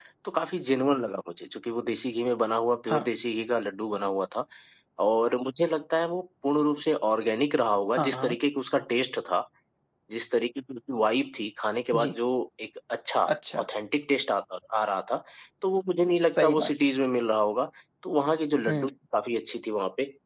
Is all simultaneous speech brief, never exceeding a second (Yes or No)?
Yes